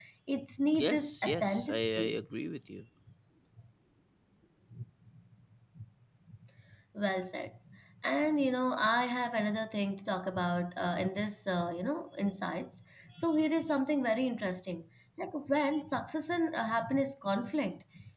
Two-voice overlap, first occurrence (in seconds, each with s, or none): 0.8 s